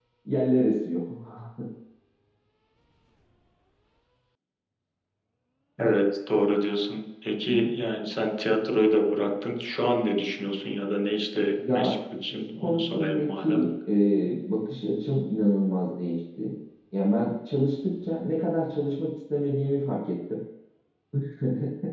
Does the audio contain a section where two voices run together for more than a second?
Yes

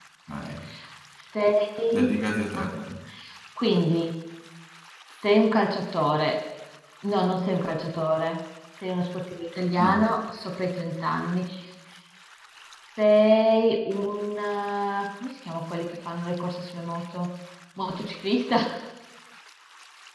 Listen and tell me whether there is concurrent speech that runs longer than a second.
No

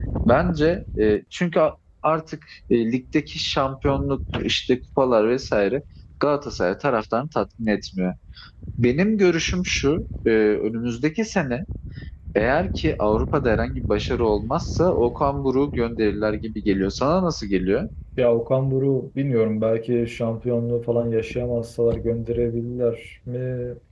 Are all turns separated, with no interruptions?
Yes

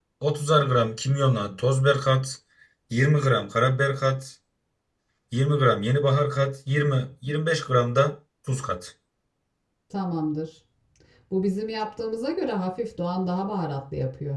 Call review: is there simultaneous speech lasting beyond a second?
No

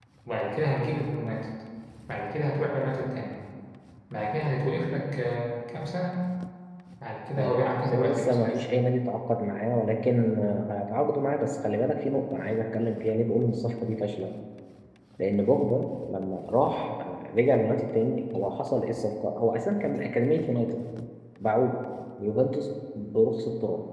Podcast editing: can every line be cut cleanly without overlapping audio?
No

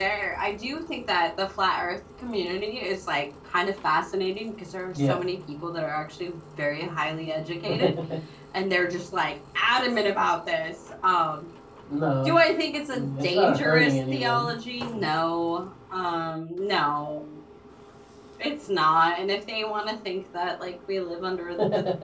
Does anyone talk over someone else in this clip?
Yes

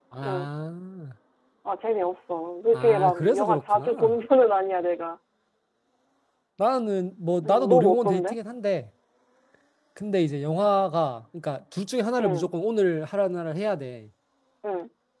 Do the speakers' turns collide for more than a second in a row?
Yes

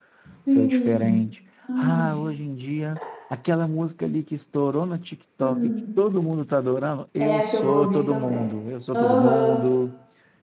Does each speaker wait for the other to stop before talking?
No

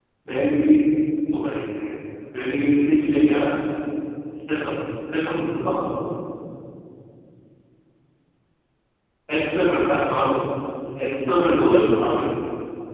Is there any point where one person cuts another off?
Yes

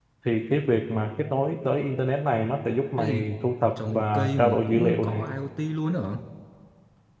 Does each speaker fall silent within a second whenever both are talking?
No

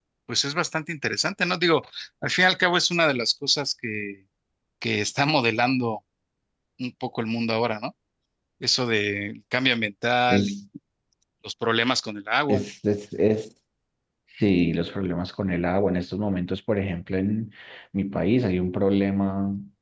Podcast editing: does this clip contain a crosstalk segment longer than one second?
No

